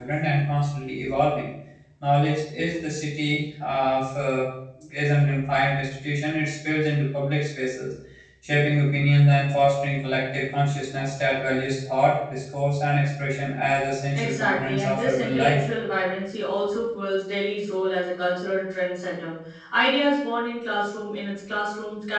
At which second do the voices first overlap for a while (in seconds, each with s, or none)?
14.1 s